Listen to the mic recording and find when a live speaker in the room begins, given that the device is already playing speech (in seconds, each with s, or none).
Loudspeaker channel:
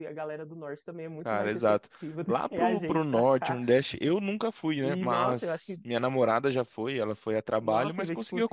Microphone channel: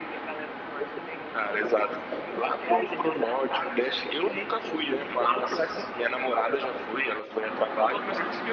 none